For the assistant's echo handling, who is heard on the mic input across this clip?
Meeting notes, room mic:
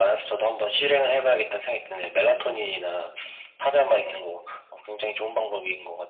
echo only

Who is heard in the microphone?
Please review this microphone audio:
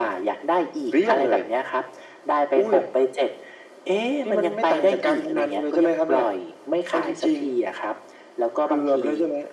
echo only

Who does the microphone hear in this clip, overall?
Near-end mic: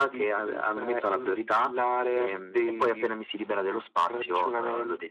echo only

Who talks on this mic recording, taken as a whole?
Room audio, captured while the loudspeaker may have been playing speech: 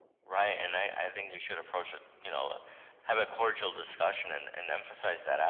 echo only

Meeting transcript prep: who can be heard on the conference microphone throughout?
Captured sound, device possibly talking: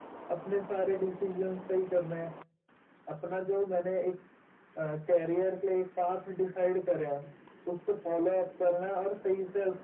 echo only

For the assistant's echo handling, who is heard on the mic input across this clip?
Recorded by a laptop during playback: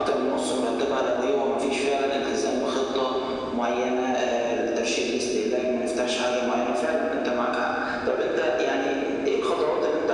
echo only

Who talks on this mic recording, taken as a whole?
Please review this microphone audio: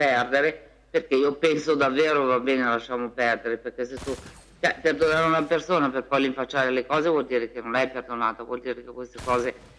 echo only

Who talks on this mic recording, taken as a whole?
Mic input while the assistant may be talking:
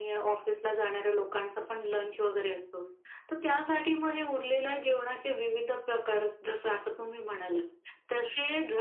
echo only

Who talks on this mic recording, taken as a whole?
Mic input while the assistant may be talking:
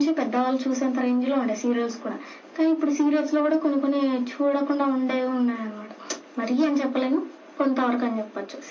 echo only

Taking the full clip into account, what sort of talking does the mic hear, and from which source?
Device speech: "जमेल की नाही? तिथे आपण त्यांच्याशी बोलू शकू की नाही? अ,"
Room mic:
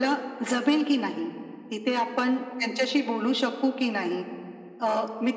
echo only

